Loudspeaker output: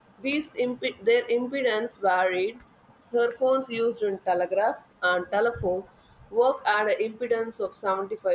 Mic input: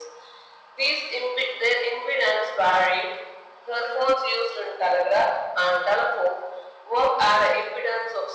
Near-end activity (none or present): none